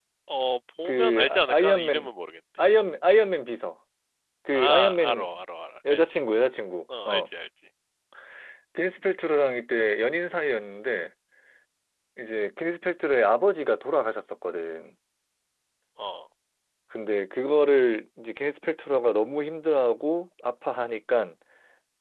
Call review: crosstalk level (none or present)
present